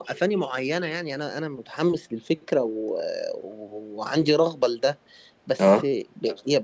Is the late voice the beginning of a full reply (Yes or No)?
No